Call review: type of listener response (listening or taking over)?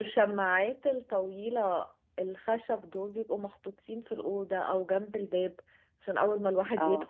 listening